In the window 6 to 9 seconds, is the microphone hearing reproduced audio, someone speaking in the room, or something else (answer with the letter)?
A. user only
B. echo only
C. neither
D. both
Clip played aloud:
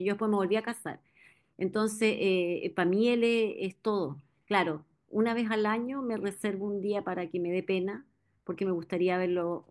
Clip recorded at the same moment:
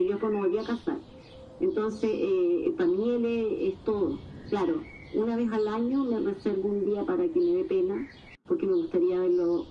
B